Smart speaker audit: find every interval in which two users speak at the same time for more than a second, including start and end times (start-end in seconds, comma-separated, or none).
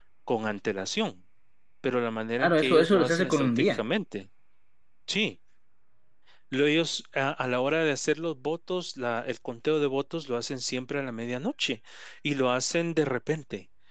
2.4-3.8